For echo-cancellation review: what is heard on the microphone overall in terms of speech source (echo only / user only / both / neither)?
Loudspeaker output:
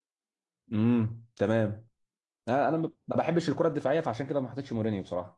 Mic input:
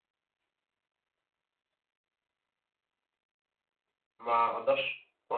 user only